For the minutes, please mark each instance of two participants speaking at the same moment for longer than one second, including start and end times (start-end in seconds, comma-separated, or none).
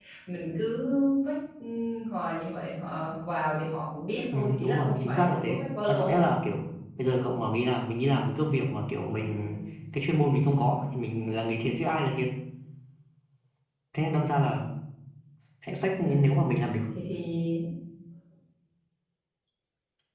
4.3-6.2